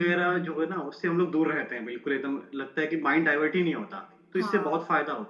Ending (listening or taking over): listening